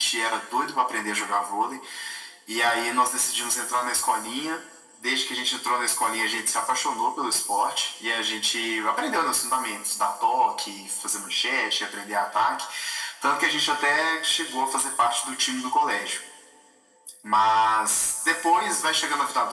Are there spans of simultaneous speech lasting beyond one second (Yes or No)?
No